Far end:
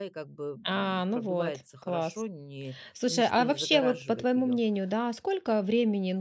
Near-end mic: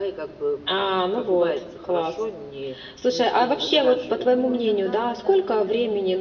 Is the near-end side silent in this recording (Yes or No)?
No